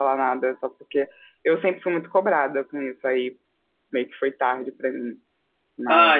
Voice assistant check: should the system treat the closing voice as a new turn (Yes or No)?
Yes